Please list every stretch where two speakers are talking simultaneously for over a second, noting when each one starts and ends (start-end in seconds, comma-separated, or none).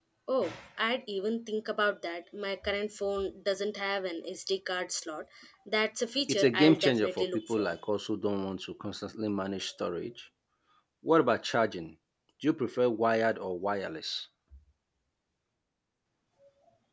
6.3-7.7